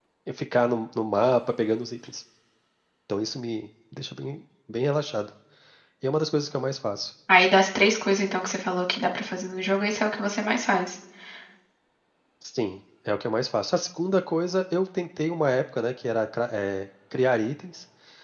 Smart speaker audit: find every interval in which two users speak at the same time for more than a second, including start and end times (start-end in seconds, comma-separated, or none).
none